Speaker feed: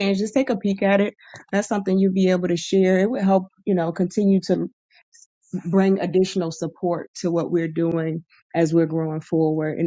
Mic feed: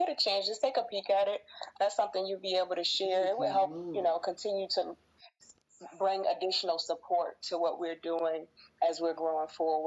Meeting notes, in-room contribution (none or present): present